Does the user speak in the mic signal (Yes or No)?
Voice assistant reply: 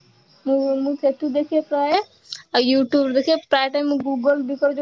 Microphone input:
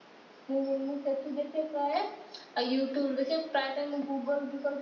No